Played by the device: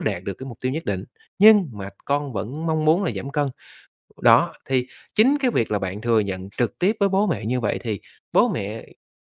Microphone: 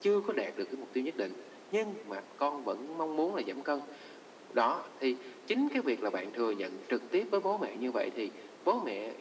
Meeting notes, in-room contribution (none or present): none